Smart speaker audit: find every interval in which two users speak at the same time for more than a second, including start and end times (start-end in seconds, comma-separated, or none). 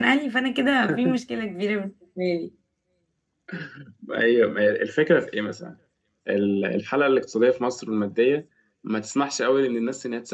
none